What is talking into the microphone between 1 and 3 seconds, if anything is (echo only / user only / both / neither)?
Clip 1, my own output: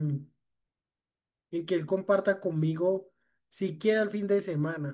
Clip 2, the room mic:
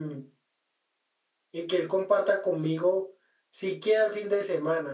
echo only